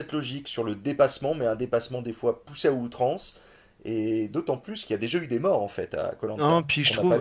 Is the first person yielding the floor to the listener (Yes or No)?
Yes